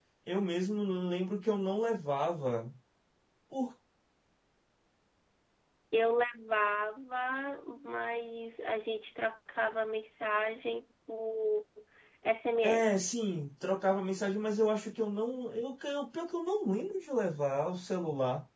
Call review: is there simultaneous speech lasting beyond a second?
No

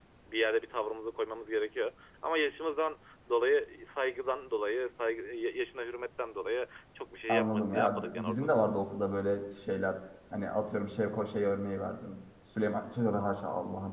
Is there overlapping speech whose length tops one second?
Yes, from 7.3 s

